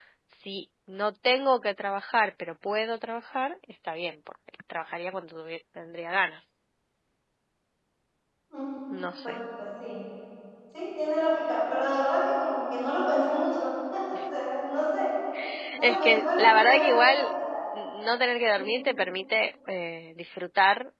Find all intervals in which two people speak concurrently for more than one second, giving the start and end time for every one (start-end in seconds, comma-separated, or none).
15.8-17.3